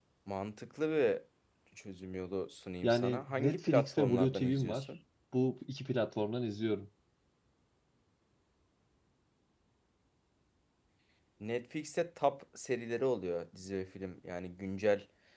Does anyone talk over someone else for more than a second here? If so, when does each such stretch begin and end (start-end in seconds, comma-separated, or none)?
2.8-4.9